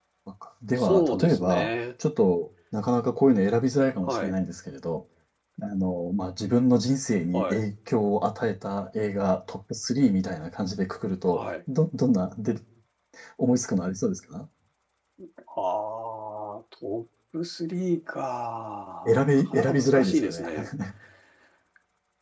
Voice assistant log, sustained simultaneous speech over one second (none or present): present